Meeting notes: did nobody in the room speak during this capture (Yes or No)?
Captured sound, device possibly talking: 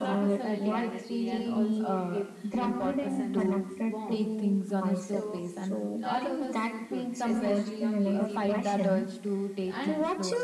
No